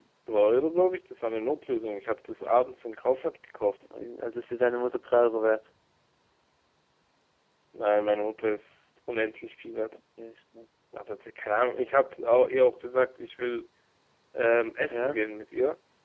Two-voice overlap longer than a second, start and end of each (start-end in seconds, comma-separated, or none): none